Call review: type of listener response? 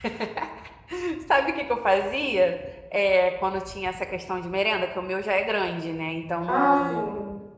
listening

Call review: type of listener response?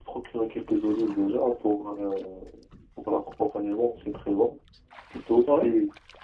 listening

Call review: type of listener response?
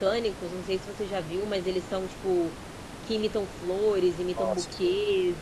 listening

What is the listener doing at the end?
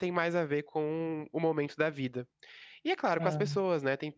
listening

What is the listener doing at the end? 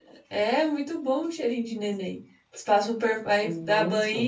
listening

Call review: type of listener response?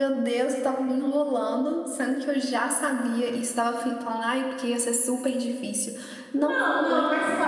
taking over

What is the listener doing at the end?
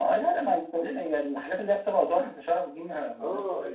taking over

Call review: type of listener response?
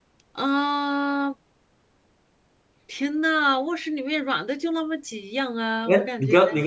taking over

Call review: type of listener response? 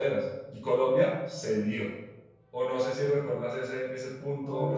taking over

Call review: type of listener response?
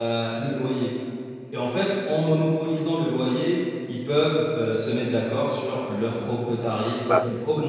listening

